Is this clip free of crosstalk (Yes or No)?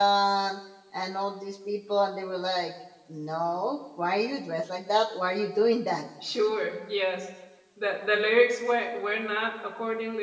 Yes